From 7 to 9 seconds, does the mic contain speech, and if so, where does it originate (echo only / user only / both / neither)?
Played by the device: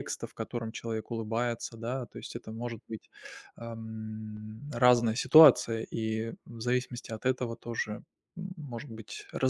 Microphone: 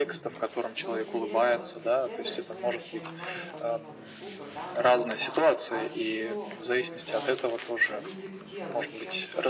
both